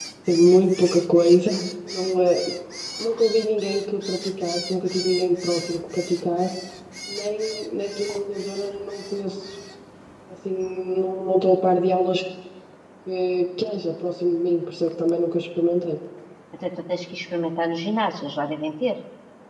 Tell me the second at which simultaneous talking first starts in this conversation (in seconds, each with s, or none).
none